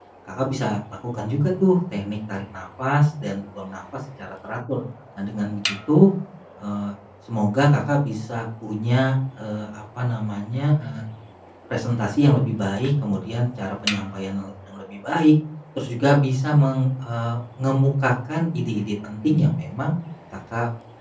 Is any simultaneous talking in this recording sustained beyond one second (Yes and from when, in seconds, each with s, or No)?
No